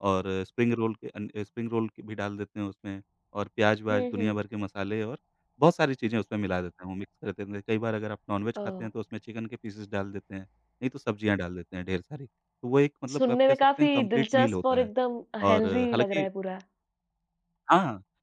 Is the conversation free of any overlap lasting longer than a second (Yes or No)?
No